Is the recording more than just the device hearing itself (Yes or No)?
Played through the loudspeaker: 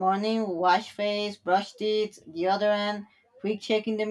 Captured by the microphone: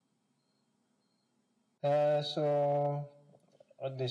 Yes